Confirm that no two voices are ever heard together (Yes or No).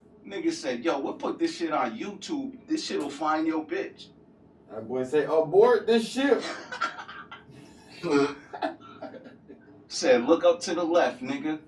Yes